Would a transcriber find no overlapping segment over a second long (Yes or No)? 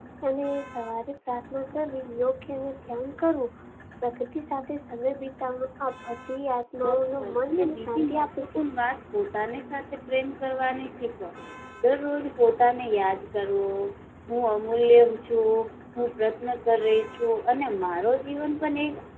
No